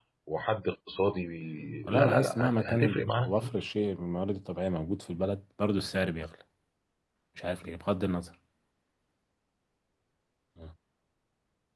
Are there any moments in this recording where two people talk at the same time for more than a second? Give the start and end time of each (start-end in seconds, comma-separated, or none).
1.8-3.5